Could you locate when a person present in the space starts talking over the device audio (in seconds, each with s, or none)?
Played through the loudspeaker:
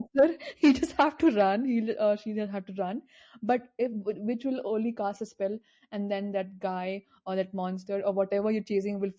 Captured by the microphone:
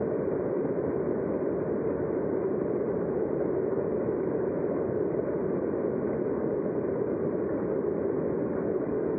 none